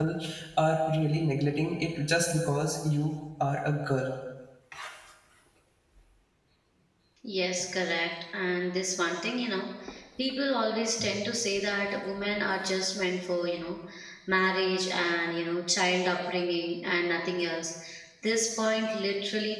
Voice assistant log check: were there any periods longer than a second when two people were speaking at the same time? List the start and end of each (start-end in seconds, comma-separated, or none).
none